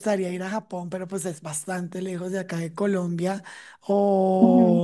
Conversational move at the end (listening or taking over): listening